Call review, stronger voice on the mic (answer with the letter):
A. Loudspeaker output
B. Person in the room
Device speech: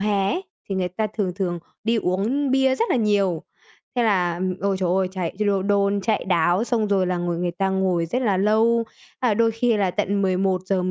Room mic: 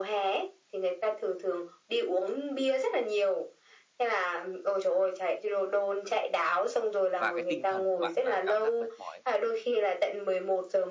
A